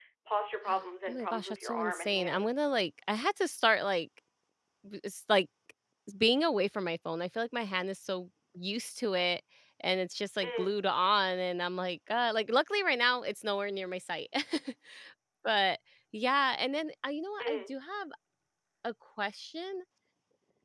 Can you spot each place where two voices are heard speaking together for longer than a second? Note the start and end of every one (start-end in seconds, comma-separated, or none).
1.1-2.5